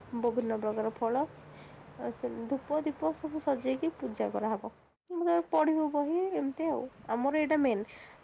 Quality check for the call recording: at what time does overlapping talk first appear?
none

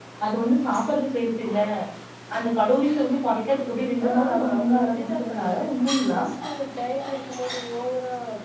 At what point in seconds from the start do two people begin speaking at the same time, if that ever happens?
4.0 s

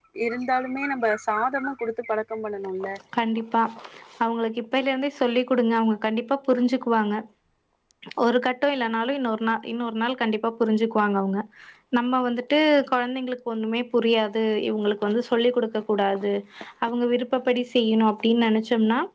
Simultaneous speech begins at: none

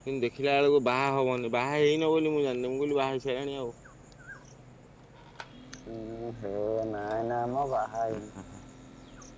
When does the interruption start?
none

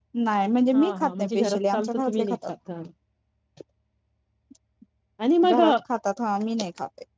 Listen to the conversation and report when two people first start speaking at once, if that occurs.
0.7 s

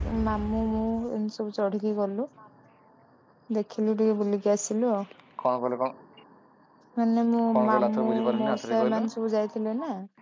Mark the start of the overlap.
7.5 s

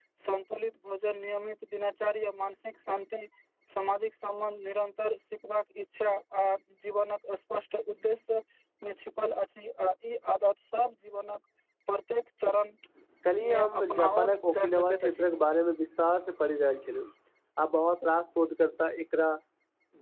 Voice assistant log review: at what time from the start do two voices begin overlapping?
13.5 s

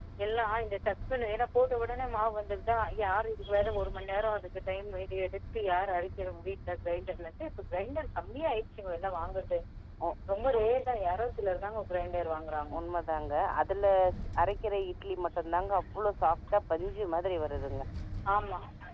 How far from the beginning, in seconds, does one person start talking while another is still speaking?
none

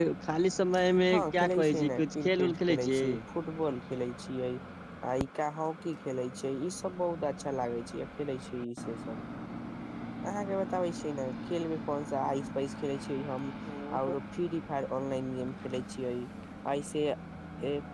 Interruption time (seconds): 1.1 s

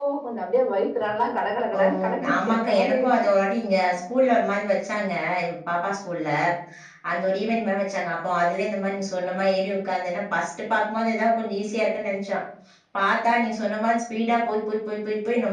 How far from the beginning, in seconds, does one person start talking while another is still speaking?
1.7 s

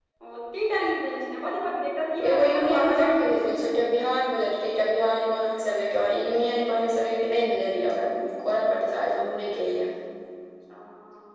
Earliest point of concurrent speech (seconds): 2.2 s

